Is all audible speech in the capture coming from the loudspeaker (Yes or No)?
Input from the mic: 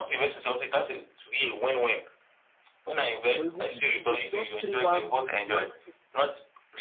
No